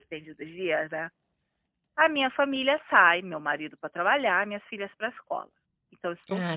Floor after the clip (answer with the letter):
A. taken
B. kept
A